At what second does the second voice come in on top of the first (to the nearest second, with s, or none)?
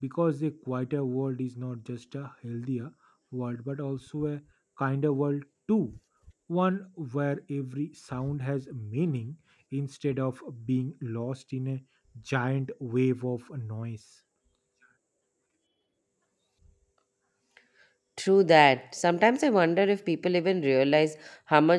none